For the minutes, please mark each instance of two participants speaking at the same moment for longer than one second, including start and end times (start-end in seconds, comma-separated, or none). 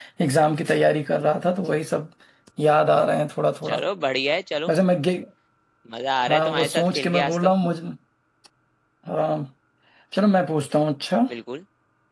6.3-7.5